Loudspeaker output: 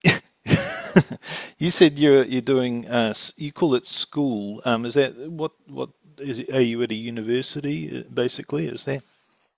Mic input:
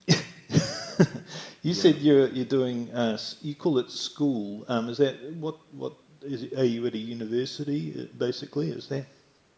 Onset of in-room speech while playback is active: 1.7 s

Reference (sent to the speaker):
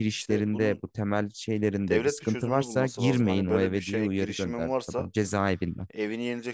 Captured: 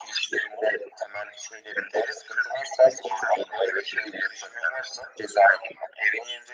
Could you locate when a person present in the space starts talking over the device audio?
none

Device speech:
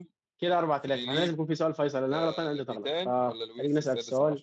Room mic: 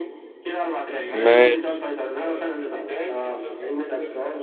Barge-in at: 1.1 s

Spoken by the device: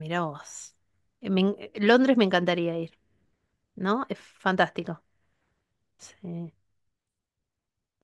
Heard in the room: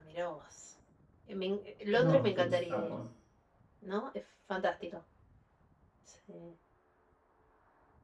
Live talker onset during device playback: 1.9 s

